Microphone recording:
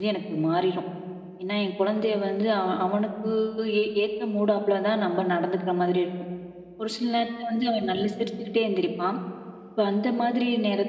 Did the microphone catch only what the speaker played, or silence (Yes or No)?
No